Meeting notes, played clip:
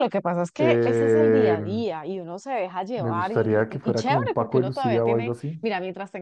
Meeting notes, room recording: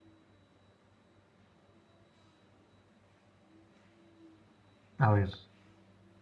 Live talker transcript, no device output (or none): A ver,